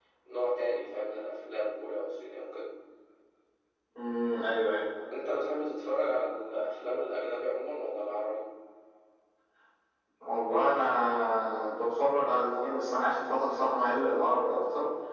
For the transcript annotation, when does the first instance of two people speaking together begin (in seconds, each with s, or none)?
none